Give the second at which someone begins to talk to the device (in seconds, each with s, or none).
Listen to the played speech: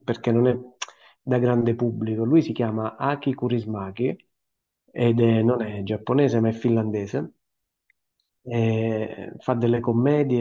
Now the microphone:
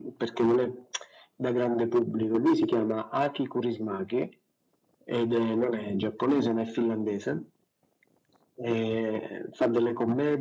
none